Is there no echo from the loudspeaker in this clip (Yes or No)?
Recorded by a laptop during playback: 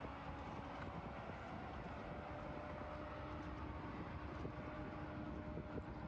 Yes